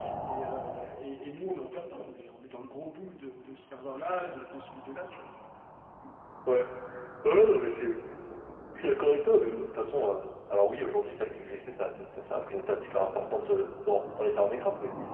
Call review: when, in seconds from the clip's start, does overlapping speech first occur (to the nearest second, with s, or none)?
none